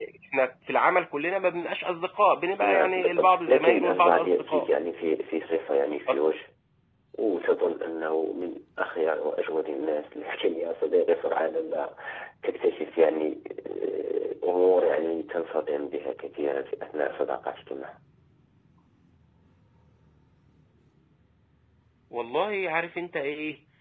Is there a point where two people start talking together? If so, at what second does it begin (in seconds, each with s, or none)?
2.6 s